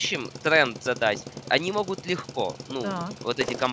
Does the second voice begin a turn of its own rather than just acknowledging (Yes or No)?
No